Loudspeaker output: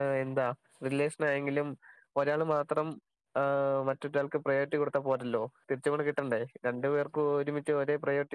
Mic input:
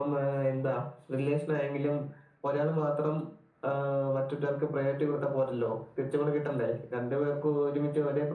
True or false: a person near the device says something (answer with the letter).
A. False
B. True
A